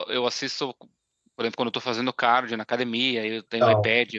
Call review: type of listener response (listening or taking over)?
listening